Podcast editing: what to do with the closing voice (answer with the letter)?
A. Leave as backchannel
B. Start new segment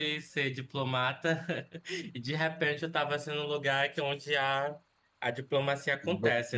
B